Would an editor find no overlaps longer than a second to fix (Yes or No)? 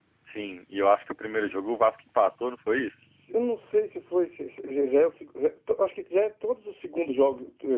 Yes